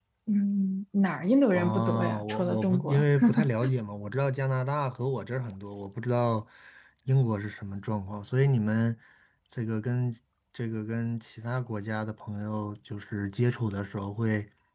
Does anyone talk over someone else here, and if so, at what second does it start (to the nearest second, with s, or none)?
2 s